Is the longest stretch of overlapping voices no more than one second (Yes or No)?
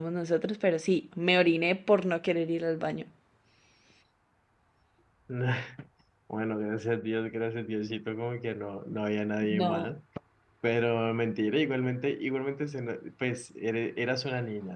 Yes